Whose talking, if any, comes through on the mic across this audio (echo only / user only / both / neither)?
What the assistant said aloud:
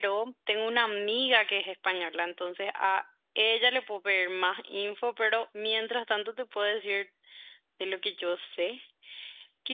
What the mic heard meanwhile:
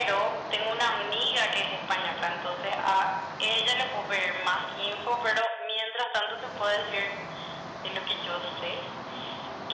echo only